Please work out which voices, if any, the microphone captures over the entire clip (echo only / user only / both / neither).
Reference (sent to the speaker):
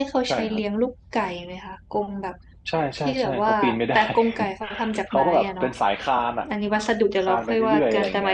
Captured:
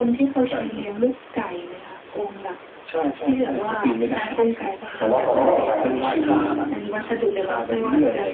both